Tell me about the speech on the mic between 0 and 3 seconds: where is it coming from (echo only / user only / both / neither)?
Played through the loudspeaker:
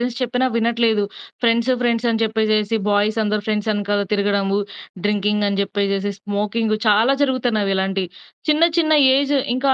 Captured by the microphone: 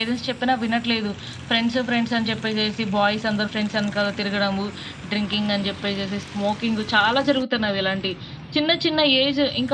echo only